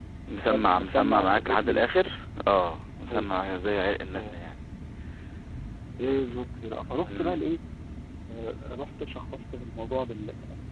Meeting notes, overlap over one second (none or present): present